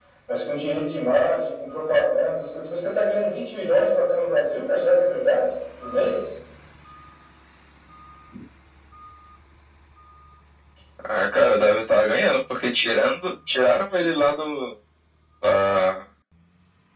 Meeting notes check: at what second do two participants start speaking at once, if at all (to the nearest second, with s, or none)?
none